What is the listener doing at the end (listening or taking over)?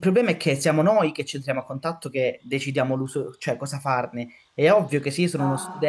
listening